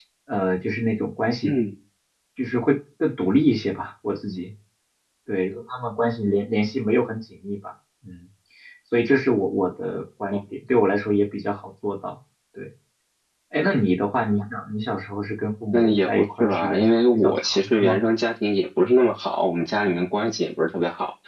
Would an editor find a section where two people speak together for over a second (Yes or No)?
Yes